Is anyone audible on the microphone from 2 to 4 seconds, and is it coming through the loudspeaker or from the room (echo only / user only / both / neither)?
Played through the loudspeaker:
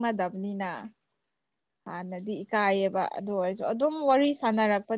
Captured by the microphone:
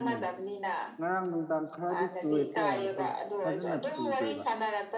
both